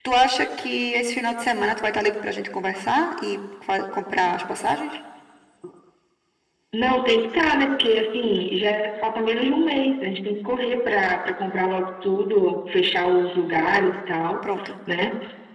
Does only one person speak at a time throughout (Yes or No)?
Yes